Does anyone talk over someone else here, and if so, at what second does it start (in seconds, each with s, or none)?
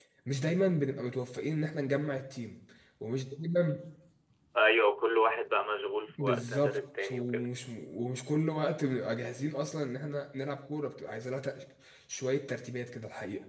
6.2 s